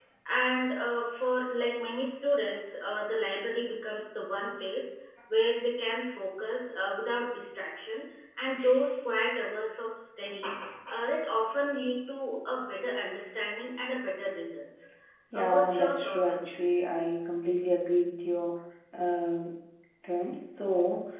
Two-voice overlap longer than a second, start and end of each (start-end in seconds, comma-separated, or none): 15.4-16.6